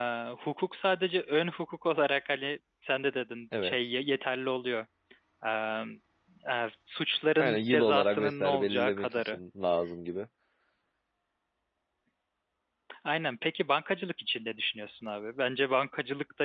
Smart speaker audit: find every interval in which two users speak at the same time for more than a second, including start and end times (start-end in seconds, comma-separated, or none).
7.4-9.4